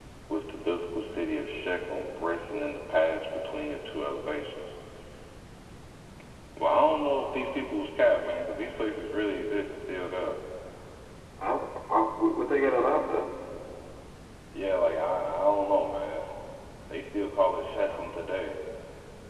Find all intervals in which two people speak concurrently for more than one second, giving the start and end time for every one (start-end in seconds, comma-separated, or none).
none